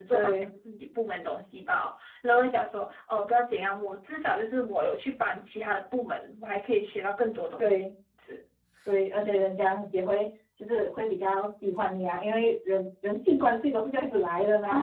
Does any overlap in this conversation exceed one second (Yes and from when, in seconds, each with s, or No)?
No